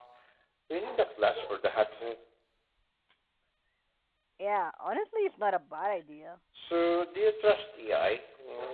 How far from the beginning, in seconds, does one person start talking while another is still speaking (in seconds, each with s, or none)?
none